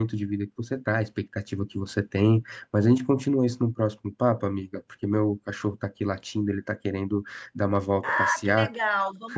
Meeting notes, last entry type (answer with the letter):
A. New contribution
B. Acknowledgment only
A